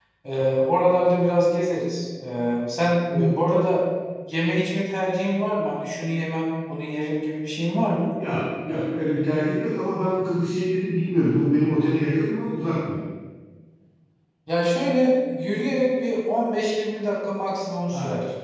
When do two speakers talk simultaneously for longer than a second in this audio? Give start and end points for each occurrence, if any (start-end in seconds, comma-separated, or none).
none